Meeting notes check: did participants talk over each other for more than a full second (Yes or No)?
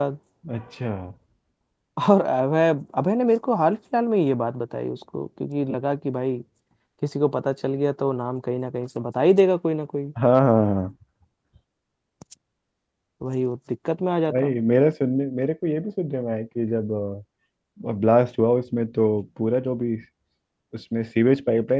No